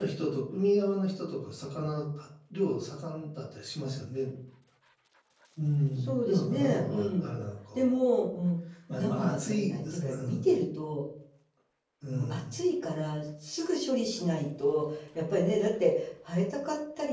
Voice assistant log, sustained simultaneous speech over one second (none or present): present